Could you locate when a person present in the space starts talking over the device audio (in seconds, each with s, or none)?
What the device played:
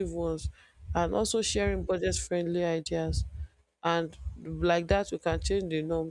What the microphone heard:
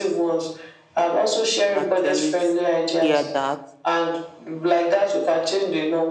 1.7 s